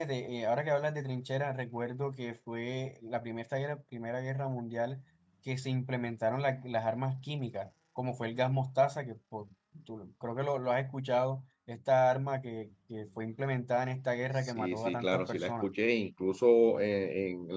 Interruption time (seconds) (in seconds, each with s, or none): 14.4 s